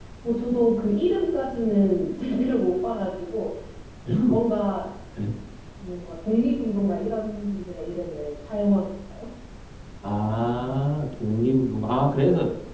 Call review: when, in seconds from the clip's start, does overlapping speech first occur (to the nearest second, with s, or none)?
none